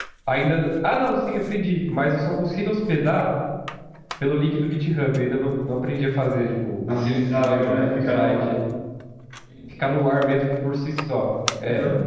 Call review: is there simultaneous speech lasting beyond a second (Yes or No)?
Yes